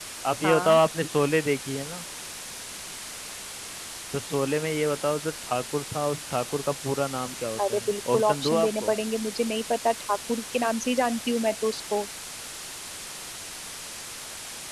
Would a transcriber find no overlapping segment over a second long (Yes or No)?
No